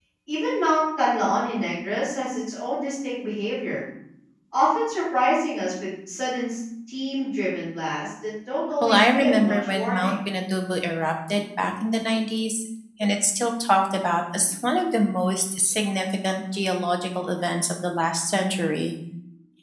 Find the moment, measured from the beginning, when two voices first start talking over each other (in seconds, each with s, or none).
8.8 s